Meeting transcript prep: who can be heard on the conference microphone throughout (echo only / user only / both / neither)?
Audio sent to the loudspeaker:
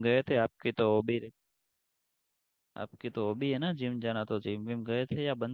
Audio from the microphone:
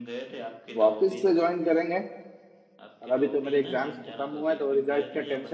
both